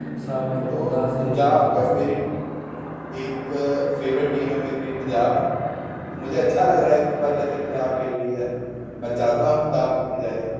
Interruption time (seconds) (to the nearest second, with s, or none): 1 s